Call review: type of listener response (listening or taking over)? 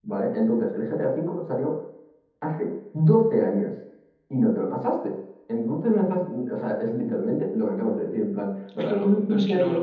taking over